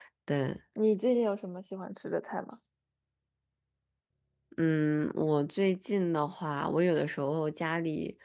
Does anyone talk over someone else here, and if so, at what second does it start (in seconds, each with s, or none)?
none